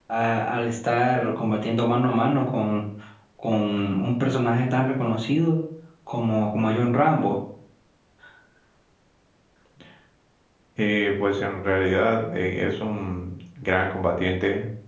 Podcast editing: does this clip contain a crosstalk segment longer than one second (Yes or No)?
No